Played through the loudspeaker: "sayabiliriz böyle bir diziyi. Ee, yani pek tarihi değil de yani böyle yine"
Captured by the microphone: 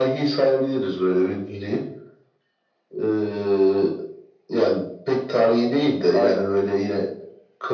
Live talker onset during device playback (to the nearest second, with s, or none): 6 s